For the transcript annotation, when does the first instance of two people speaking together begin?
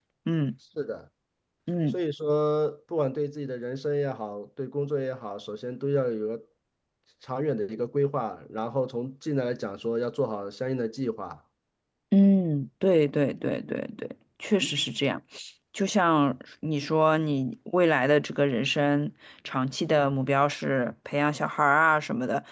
none

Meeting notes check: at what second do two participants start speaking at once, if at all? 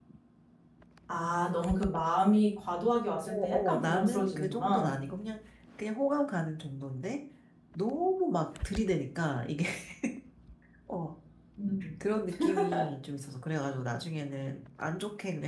3.2 s

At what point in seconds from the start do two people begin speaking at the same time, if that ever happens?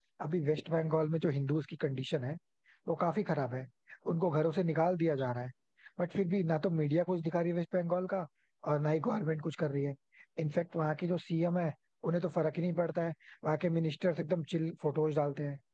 none

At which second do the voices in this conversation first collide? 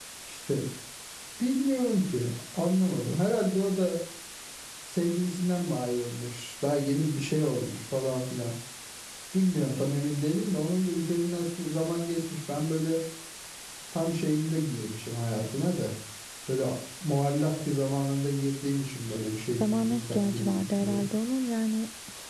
19.6 s

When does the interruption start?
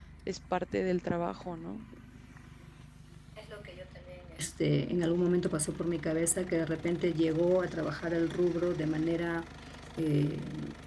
none

